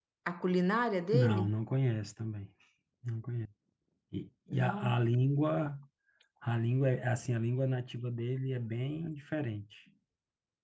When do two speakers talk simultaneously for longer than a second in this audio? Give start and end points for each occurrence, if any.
none

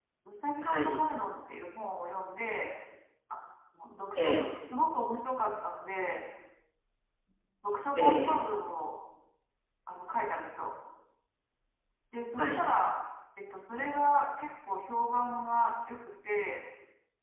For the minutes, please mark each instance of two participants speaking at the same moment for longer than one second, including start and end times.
none

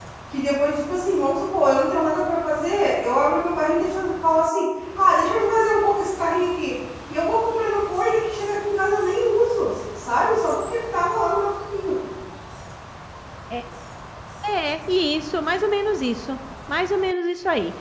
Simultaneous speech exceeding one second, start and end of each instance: none

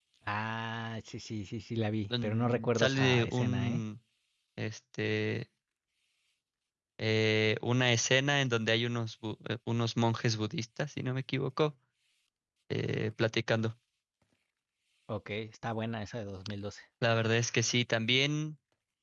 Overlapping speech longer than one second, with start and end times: 2.2-3.8

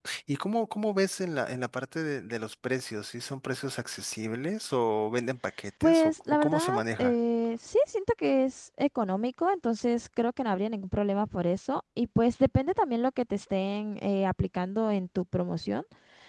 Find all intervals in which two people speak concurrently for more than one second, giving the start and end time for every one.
5.8-7.1

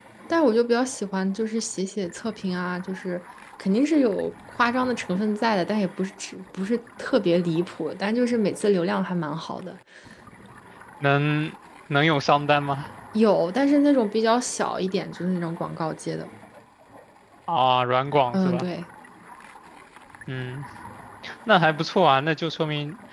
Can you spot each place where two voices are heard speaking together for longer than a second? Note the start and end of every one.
none

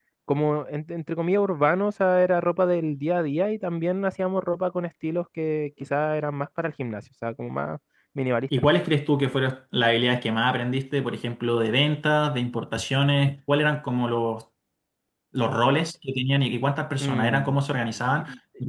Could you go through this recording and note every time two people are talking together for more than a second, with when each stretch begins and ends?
none

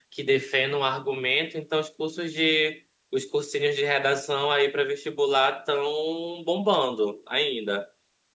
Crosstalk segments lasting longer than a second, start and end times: none

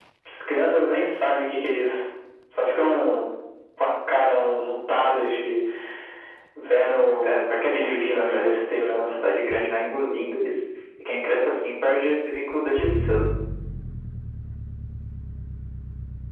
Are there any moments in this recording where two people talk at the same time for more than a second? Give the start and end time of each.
7.2-8.5

